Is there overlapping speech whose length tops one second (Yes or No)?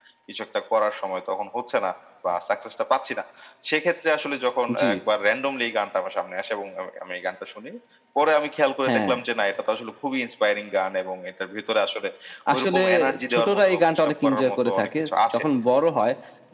Yes